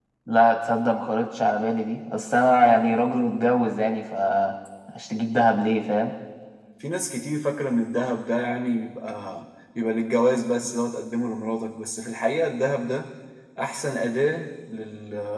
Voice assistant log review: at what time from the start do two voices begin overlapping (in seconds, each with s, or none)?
none